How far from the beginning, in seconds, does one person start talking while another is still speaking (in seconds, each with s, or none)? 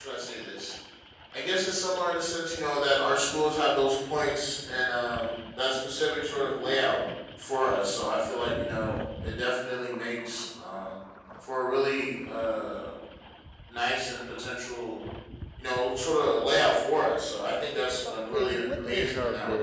17.8 s